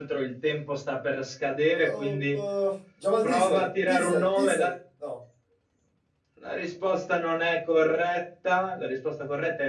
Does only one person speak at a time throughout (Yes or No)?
No